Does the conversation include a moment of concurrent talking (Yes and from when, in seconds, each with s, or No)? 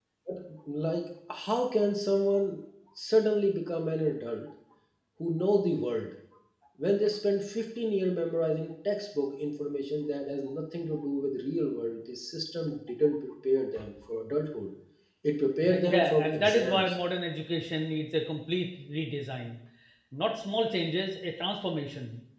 Yes, from 15.7 s